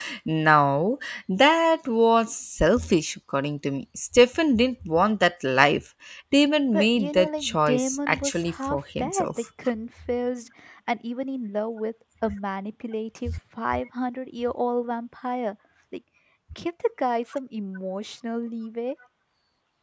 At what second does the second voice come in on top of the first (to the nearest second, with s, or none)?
7 s